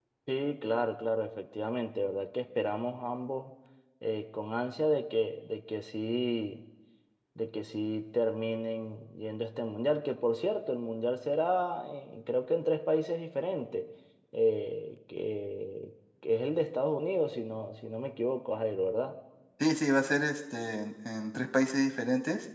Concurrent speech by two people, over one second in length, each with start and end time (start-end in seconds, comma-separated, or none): none